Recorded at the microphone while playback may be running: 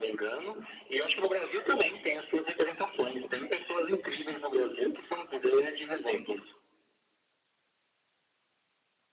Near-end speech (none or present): none